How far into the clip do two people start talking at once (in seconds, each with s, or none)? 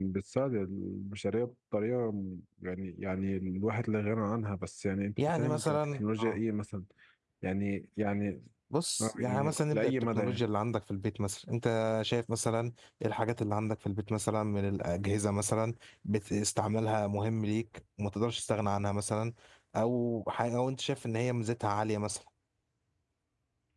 5.2 s